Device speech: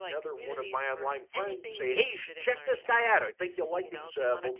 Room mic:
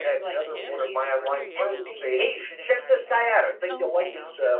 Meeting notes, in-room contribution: present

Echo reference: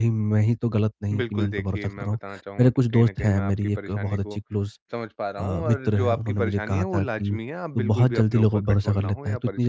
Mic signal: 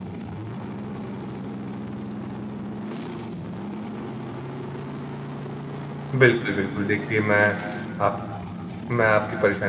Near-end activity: present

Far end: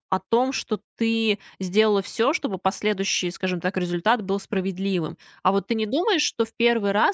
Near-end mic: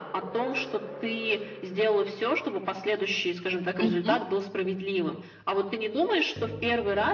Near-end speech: present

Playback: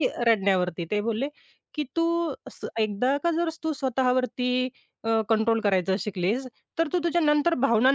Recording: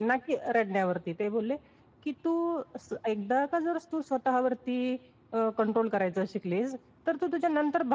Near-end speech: none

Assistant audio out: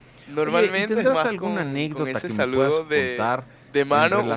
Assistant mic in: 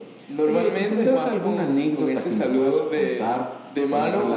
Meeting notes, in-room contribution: none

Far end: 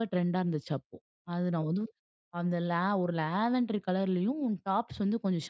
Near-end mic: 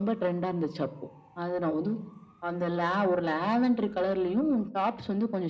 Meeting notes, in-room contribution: none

